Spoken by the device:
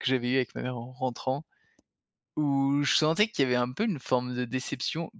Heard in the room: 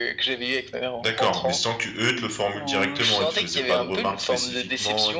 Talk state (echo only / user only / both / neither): both